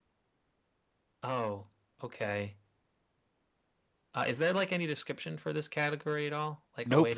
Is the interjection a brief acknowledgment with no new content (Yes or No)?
No